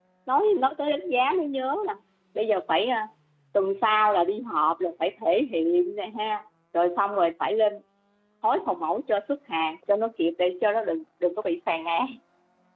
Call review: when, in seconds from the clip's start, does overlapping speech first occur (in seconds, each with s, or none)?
none